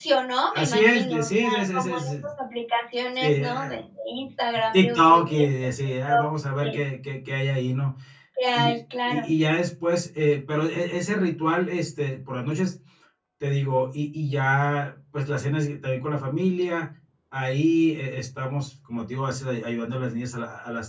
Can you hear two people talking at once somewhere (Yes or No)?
Yes